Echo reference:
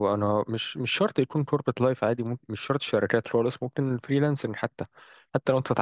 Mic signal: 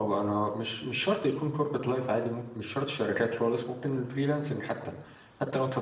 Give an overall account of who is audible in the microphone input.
echo only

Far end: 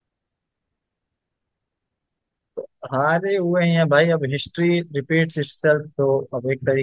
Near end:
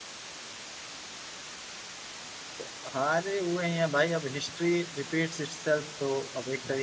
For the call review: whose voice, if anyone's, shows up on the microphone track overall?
echo only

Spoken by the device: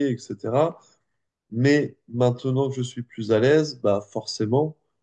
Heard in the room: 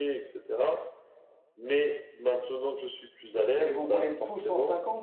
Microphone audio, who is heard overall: both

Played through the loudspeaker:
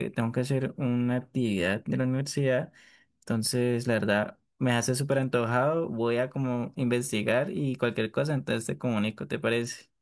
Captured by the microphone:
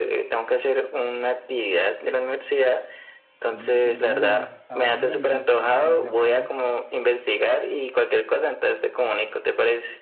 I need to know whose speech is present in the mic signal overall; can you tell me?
both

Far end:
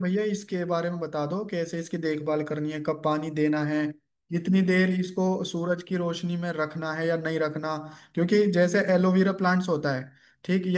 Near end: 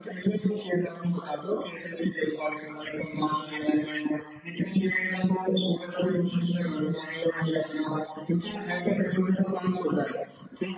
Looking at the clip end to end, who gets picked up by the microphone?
echo only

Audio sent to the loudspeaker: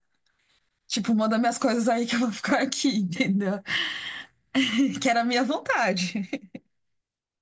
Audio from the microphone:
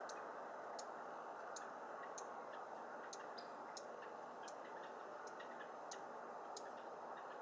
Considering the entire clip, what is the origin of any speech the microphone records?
neither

